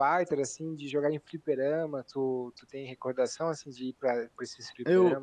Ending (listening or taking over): taking over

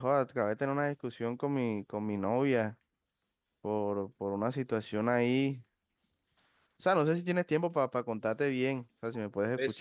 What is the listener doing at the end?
taking over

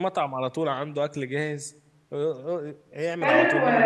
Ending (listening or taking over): taking over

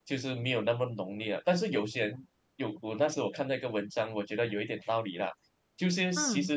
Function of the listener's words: listening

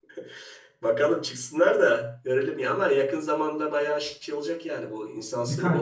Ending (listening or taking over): taking over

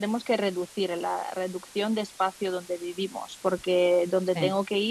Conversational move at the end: listening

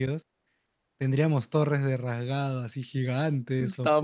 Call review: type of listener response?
taking over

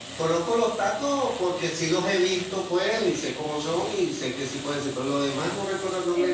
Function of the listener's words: taking over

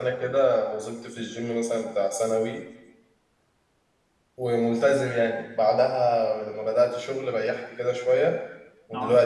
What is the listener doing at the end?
listening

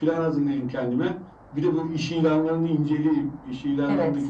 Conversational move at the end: listening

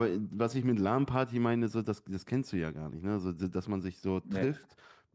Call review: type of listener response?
listening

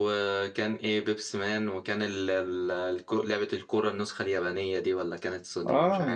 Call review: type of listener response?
taking over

